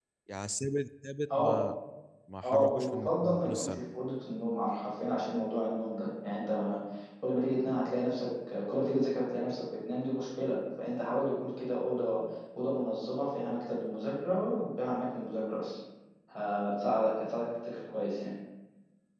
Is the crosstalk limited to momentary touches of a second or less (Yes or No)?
No